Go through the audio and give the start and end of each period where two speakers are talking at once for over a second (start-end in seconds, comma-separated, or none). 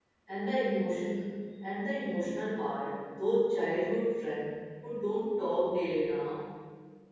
none